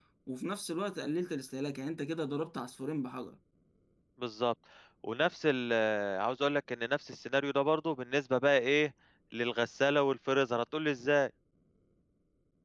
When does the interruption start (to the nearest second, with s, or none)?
none